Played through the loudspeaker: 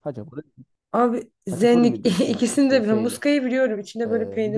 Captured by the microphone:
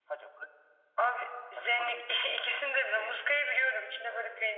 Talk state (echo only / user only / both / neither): echo only